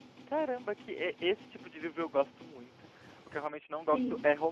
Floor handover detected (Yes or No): No